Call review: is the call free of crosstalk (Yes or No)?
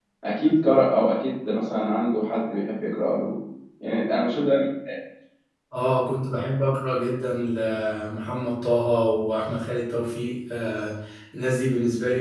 Yes